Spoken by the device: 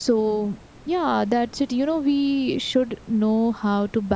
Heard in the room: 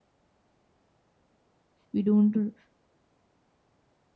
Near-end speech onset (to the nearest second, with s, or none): 2 s